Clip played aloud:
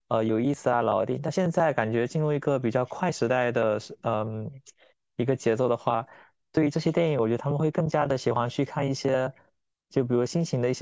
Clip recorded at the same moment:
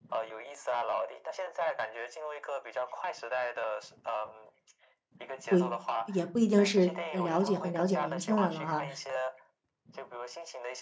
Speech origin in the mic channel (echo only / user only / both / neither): both